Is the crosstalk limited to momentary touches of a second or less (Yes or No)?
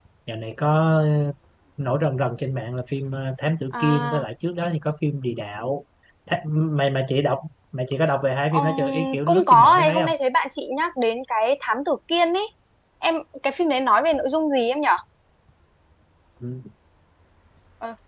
No